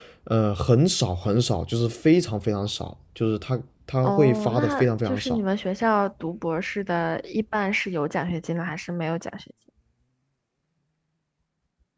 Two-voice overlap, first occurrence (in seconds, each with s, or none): 4.0 s